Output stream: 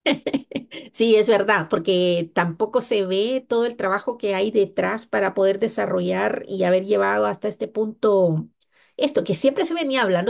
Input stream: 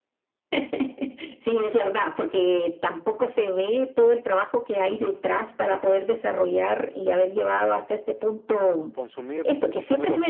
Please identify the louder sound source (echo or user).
echo